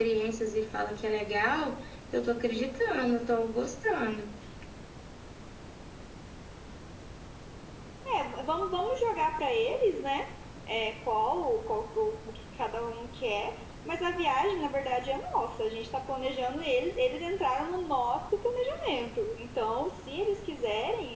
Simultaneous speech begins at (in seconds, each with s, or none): none